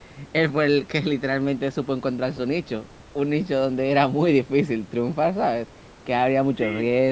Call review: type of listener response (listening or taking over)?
taking over